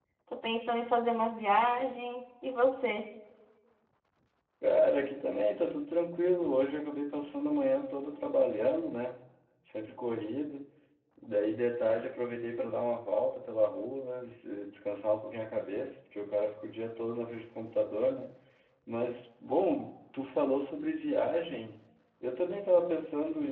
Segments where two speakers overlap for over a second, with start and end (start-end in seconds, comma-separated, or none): none